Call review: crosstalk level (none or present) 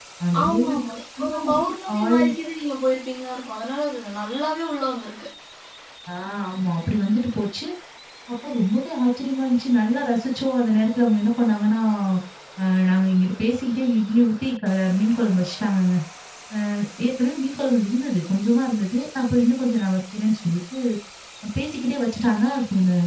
present